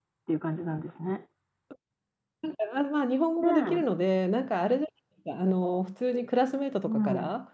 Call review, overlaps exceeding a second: none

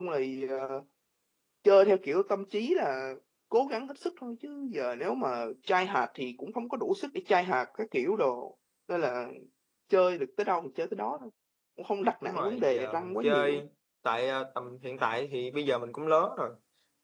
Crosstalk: present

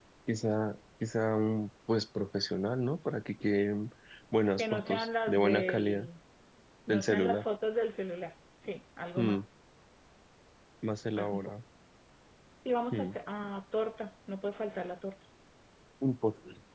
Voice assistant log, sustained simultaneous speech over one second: present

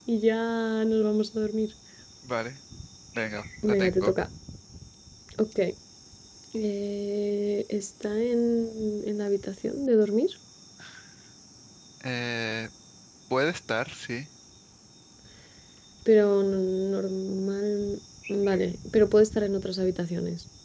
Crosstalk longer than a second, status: none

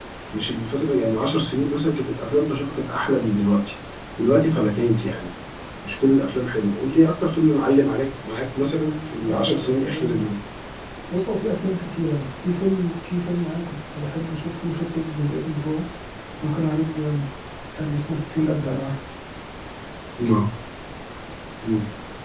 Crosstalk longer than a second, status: present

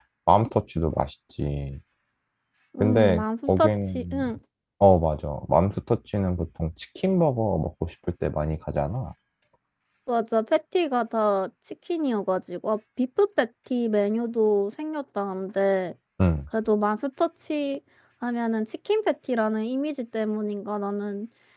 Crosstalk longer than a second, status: present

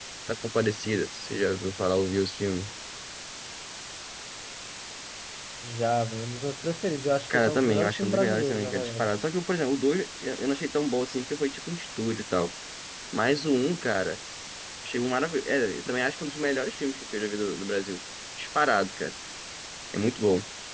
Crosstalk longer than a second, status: present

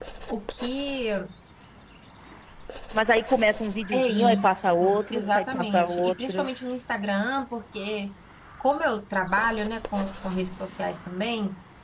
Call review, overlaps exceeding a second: present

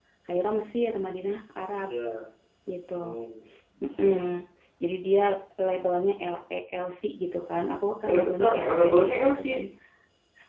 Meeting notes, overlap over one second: present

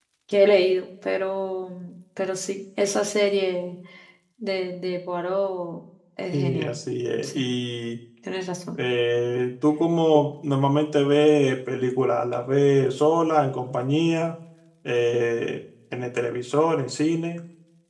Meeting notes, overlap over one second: none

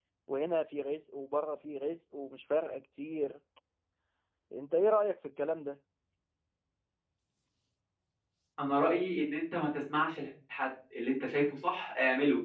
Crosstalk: none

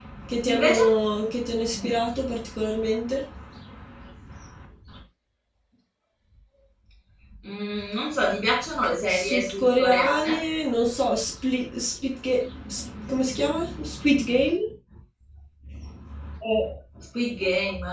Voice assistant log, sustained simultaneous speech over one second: present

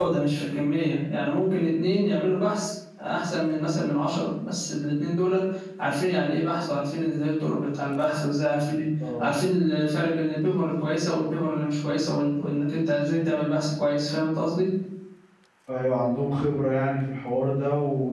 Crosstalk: none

